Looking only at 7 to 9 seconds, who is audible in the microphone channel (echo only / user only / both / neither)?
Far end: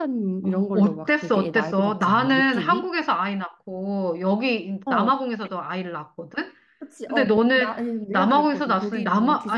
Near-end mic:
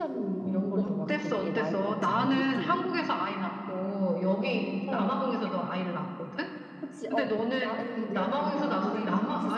both